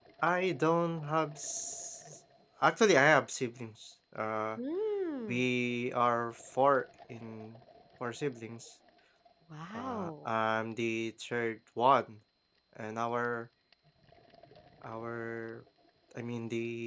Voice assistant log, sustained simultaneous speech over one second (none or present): none